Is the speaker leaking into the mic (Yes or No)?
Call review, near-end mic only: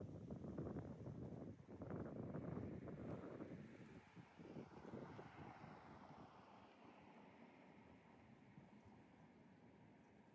No